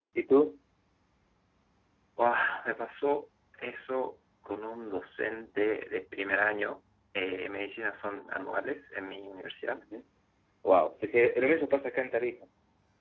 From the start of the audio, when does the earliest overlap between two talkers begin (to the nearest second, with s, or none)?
none